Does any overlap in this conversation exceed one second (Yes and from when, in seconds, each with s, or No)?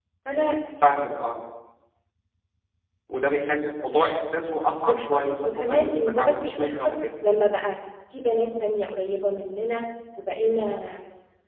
Yes, from 4.8 s